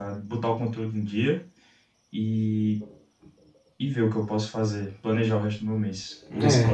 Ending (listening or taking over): taking over